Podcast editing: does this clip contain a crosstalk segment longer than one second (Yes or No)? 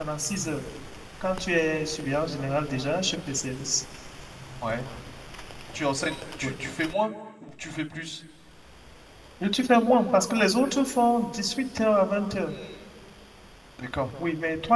No